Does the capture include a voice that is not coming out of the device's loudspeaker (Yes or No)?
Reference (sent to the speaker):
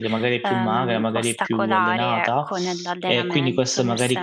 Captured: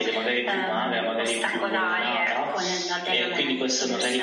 No